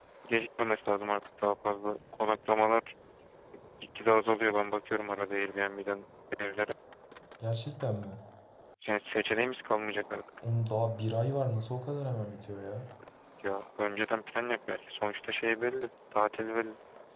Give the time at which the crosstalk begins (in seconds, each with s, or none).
none